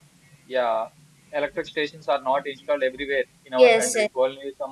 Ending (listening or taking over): listening